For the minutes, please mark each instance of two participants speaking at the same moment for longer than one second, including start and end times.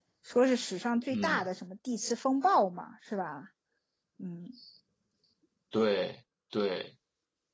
none

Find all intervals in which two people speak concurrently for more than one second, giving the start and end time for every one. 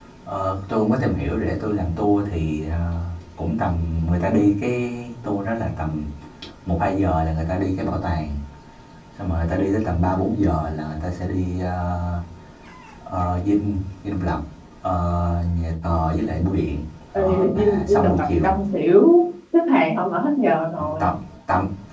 17.2-18.5

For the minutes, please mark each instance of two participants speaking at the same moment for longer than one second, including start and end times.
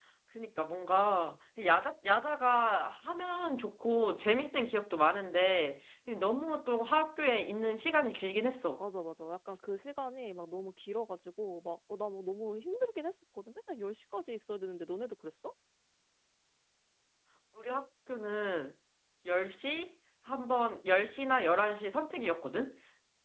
none

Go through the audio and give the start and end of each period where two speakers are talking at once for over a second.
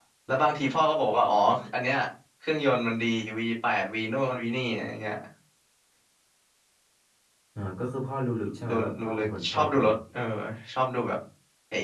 8.7-9.9

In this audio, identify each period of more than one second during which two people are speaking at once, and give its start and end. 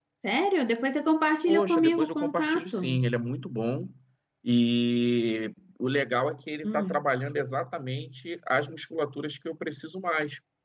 1.4-3.0

